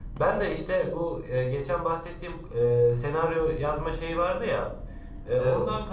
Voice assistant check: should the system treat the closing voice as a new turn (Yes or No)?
No